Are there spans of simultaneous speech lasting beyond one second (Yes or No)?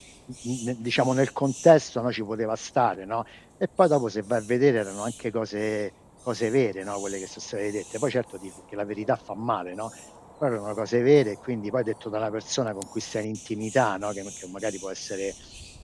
No